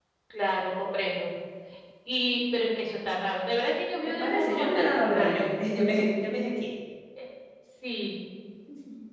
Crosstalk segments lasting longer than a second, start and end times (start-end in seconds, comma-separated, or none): 4.0-5.5